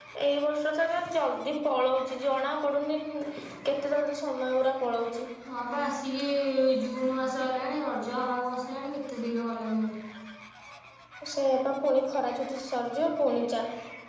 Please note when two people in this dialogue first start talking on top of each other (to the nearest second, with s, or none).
none